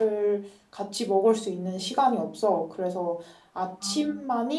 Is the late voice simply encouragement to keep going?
Yes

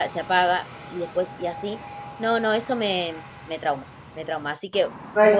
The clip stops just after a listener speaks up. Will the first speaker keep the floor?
Yes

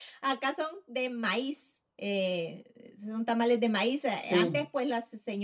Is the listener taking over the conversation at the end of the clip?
No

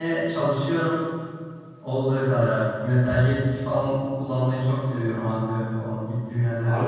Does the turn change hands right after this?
Yes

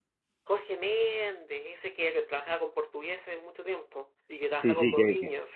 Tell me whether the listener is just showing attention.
No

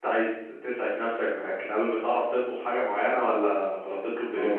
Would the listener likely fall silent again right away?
No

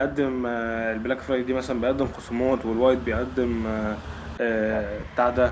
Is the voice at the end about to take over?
No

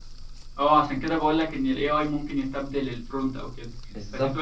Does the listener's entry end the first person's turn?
No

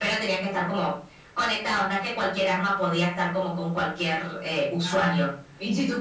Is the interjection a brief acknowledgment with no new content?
No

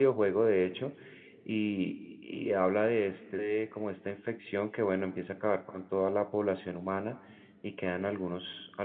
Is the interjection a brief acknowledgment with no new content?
Yes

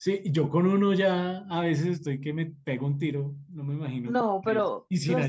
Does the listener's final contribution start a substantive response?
Yes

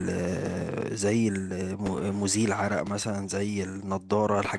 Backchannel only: Yes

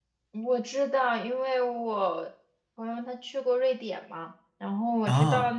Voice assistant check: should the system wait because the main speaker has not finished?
Yes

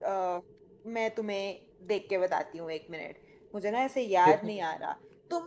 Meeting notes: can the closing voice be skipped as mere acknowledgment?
Yes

